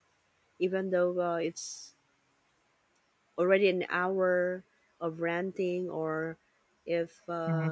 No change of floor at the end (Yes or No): Yes